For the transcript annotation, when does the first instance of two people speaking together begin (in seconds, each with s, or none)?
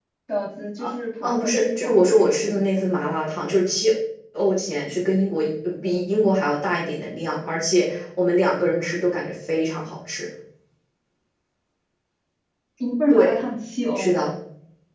1.2 s